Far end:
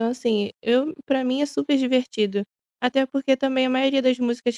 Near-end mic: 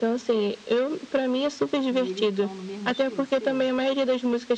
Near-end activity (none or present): present